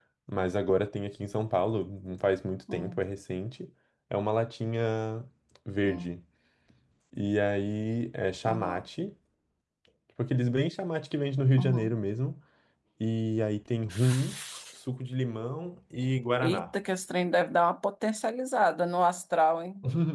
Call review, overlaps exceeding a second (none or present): none